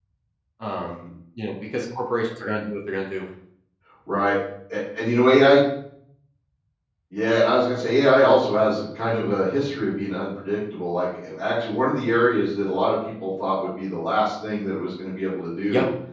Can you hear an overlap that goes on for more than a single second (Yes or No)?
No